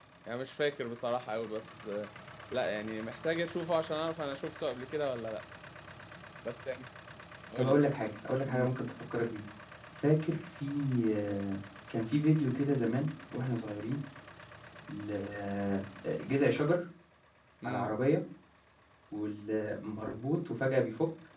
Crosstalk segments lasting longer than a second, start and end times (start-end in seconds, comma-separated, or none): none